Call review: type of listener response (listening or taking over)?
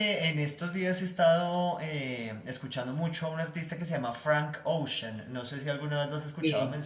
taking over